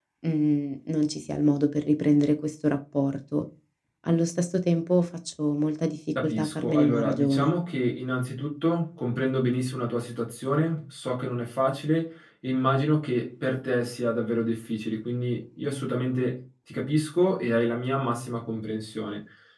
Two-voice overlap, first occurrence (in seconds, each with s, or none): 6.2 s